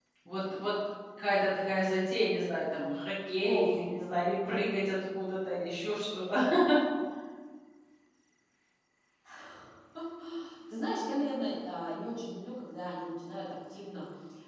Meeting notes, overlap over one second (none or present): none